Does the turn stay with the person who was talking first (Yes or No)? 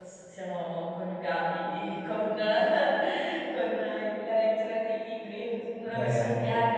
Yes